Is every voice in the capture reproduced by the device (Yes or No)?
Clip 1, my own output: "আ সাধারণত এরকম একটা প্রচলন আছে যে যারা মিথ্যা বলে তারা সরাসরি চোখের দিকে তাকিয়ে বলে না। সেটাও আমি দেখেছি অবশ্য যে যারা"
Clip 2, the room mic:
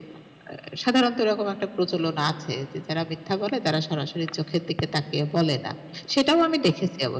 Yes